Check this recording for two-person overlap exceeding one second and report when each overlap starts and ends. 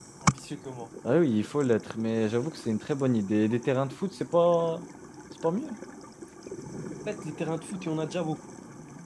none

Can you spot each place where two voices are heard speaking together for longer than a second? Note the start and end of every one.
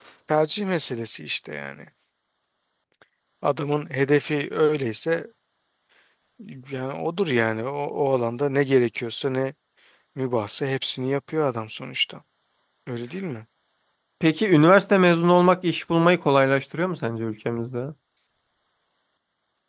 none

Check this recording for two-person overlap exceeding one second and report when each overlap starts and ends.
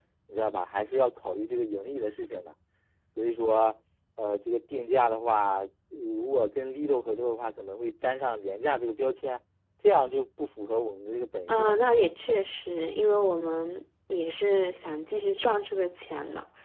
none

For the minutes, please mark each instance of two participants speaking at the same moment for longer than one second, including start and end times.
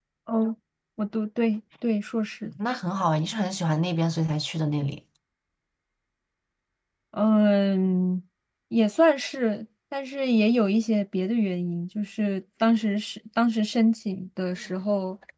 none

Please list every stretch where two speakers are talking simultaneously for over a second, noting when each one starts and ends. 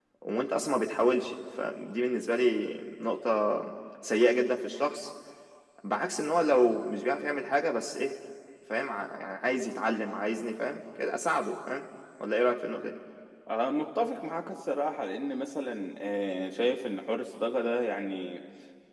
none

